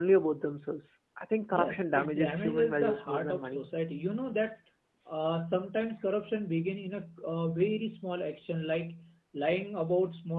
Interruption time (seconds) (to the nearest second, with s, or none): 2 s